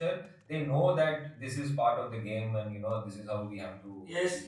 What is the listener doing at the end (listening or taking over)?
taking over